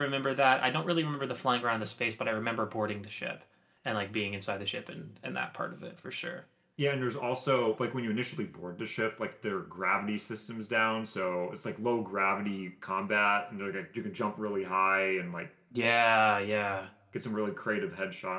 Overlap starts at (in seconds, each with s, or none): none